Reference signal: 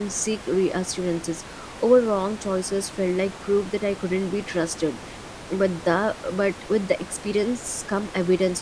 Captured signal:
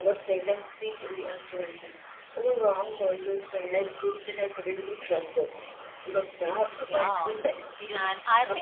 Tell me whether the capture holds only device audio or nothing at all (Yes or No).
No